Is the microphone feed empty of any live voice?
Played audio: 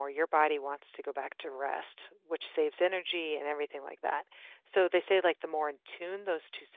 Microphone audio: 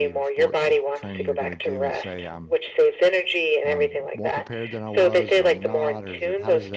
No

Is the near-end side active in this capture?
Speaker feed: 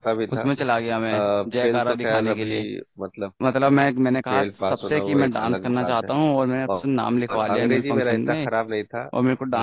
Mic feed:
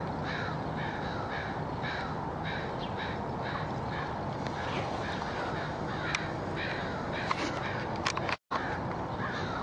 No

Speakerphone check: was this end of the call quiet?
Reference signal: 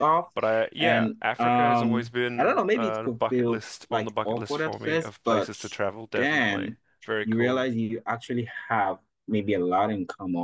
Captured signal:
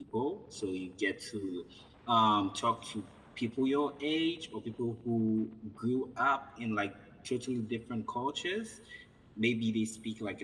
No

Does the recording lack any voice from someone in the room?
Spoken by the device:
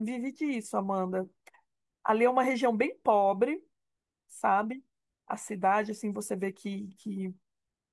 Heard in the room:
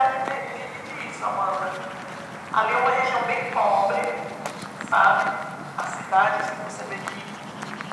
Yes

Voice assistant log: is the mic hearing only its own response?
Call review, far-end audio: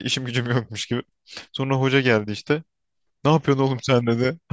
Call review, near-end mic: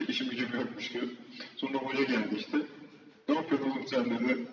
Yes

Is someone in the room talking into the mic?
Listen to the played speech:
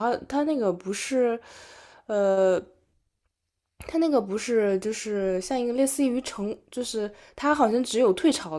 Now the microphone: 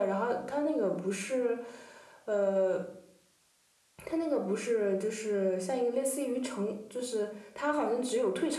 No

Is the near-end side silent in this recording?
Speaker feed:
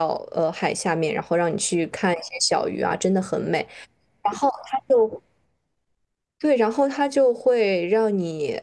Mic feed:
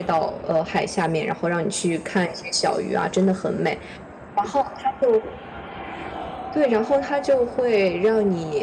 Yes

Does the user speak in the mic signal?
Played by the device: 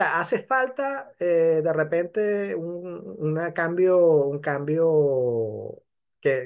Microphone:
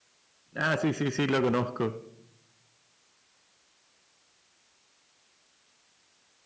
Yes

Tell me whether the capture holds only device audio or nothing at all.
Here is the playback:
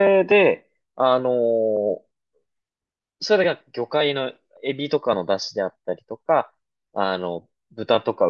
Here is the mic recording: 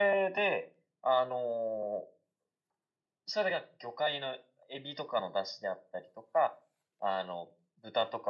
Yes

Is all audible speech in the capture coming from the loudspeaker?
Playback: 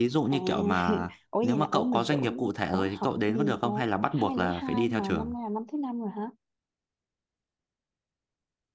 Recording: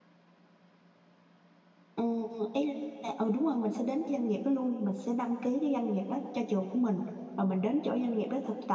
No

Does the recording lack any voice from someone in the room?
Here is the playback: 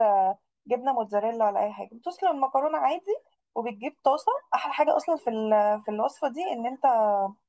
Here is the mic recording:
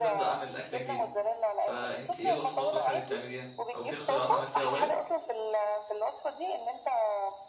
No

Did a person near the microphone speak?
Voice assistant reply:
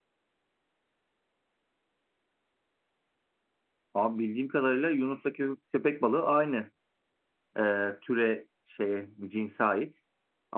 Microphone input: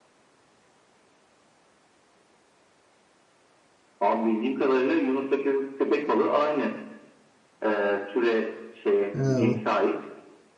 Yes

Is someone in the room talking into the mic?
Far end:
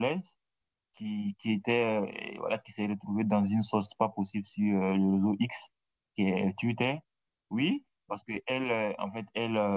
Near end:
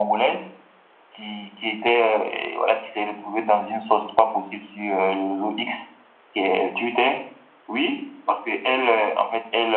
No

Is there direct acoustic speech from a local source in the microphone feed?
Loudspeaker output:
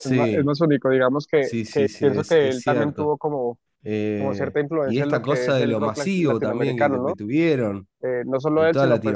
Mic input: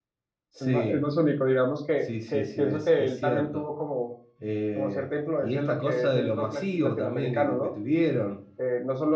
No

